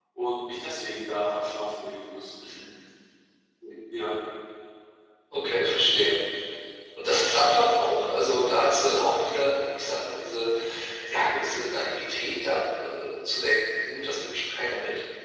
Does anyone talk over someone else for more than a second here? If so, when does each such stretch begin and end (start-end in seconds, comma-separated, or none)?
none